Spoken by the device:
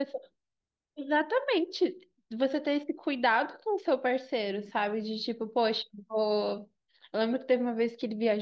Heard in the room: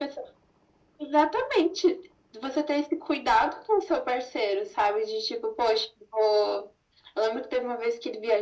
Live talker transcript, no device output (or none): none